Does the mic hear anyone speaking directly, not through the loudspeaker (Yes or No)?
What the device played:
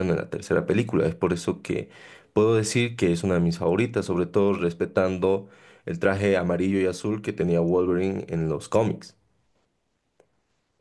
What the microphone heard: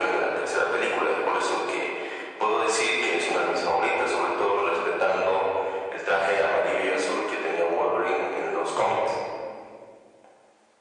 No